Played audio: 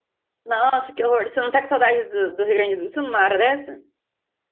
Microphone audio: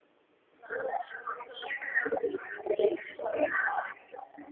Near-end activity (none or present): none